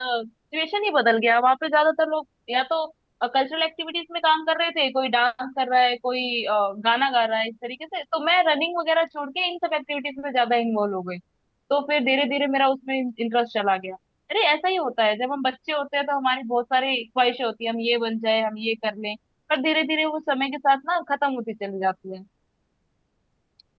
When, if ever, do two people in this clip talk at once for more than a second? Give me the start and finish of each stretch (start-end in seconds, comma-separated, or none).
none